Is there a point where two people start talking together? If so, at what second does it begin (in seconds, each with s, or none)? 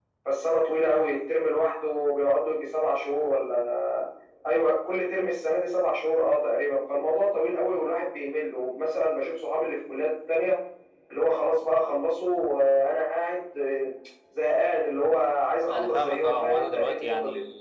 15.7 s